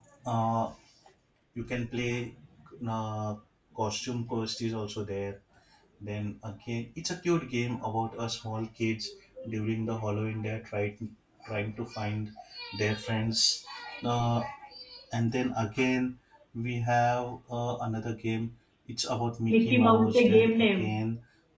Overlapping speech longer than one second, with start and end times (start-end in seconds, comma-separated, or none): 19.5-21.0